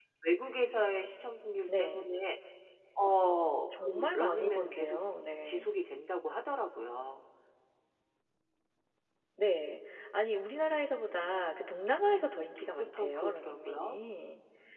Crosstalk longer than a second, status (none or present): present